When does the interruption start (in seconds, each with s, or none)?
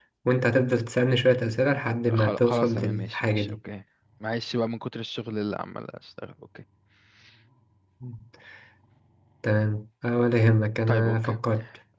2.1 s